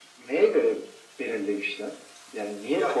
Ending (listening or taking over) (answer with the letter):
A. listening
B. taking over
B